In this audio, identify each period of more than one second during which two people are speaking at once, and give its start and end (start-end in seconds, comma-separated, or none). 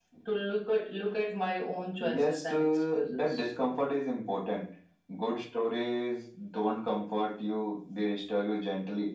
2.0-3.5